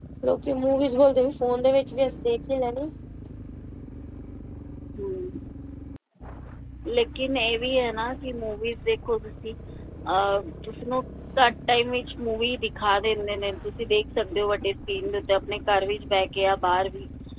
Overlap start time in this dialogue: none

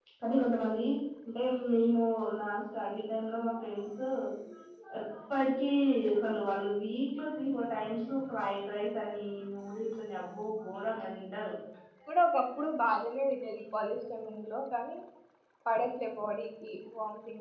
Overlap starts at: none

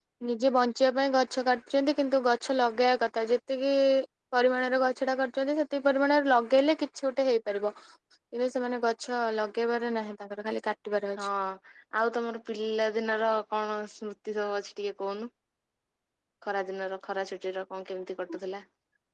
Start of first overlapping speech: none

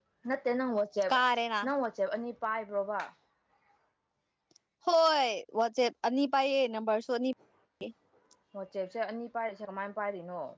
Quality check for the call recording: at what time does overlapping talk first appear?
none

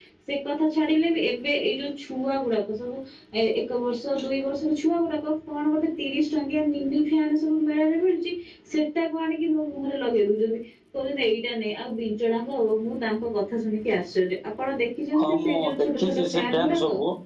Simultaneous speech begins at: 15.1 s

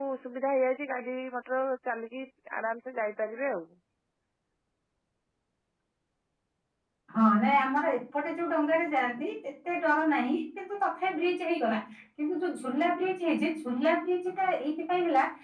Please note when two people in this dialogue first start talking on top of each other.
none

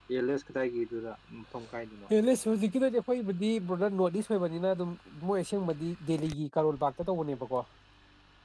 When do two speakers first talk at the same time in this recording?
none

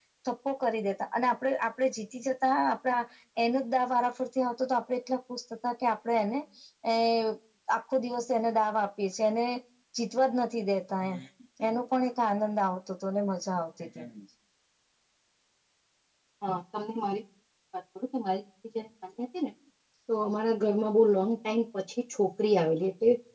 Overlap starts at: none

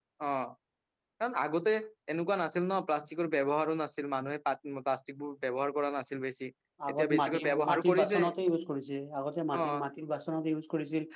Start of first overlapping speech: 6.9 s

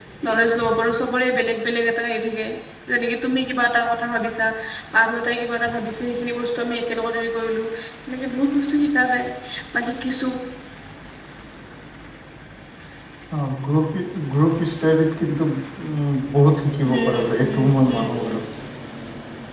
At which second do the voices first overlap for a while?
16.8 s

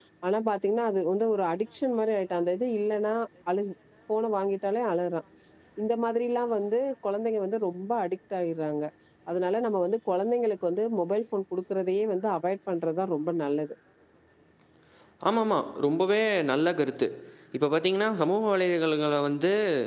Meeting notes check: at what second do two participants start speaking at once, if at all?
none

